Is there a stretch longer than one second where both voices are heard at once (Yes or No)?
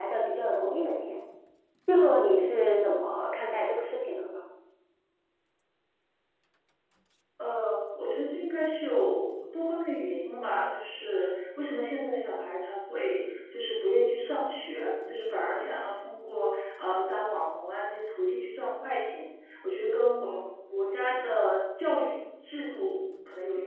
No